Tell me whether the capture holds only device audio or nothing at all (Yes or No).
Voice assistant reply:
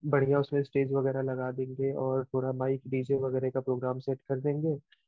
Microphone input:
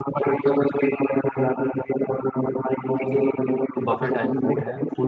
No